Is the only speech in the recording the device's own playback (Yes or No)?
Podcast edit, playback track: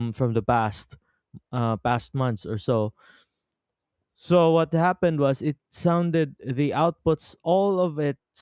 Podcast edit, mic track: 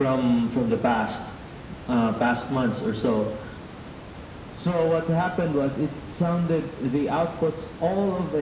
Yes